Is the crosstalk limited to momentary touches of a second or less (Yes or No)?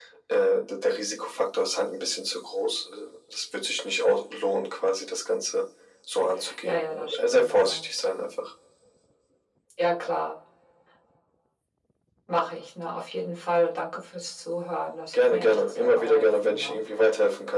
No